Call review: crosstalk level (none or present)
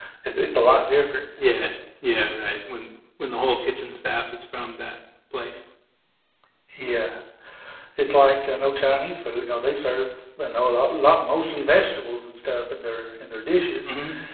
none